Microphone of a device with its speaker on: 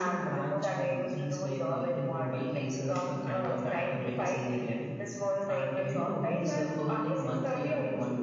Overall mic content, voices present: echo only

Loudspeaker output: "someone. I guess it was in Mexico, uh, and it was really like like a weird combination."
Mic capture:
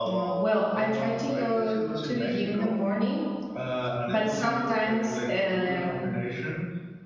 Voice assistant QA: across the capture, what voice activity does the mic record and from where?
both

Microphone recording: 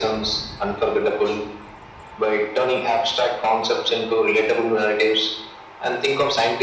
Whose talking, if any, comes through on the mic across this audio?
echo only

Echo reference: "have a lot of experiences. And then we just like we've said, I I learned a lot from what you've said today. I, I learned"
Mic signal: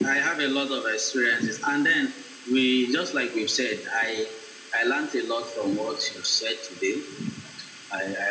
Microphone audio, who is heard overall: echo only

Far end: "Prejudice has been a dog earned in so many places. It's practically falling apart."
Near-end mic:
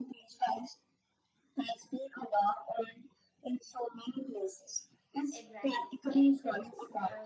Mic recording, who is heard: both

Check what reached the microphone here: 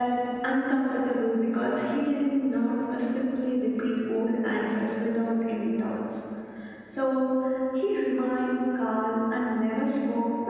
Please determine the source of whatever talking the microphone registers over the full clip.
user only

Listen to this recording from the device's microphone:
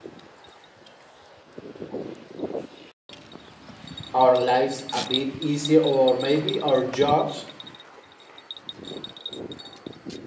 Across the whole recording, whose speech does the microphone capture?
user only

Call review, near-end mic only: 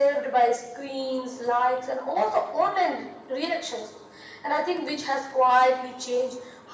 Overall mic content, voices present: echo only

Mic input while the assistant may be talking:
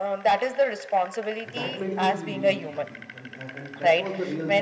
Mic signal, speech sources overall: both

